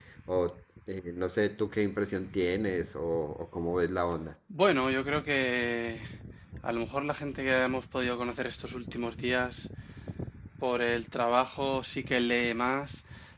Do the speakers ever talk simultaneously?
No

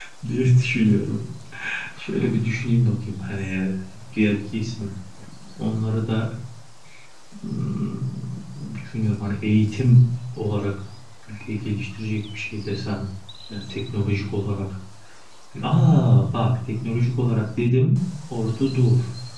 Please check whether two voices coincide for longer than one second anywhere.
No

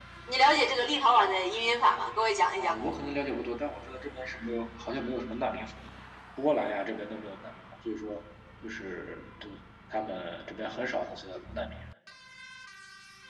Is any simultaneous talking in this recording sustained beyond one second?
No

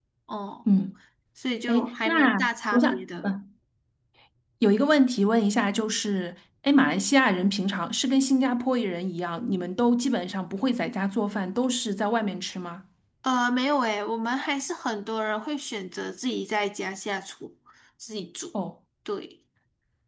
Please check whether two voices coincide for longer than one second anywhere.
Yes, from 1.7 s

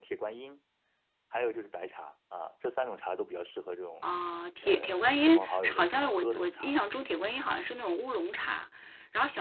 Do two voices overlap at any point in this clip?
Yes, from 4.6 s

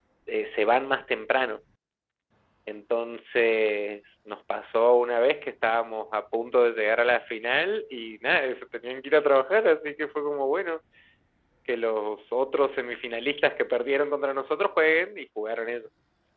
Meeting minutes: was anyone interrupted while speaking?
No

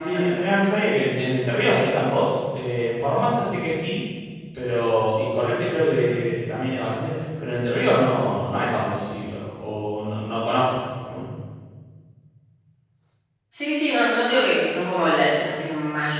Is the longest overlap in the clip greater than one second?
No

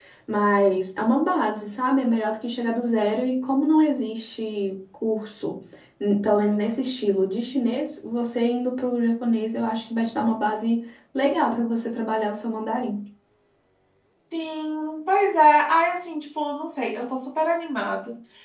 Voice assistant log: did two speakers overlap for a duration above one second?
No

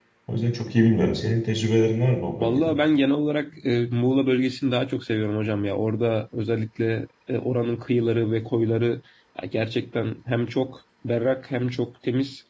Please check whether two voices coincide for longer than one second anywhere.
No

